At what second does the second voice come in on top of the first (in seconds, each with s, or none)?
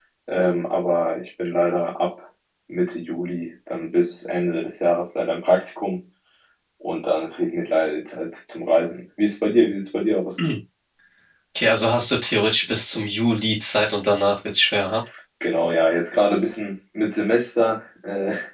none